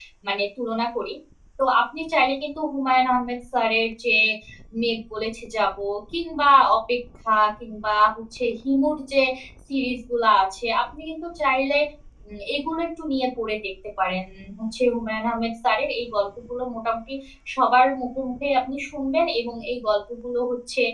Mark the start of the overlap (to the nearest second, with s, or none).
none